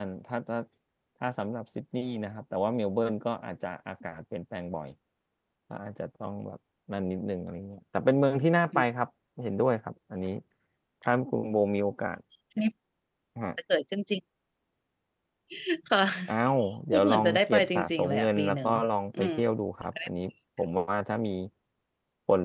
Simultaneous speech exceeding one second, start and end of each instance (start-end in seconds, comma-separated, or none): 16.9-18.7